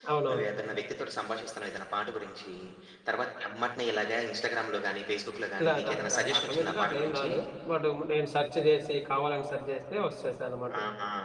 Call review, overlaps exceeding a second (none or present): present